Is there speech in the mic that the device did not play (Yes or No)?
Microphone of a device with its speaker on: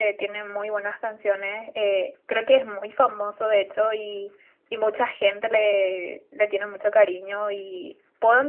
No